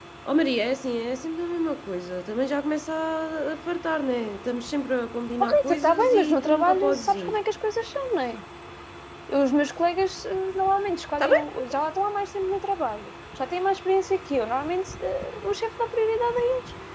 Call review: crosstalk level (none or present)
present